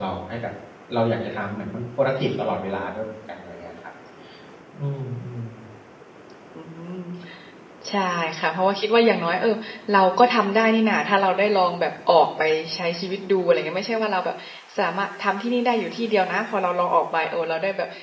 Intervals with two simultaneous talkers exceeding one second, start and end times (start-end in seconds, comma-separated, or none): none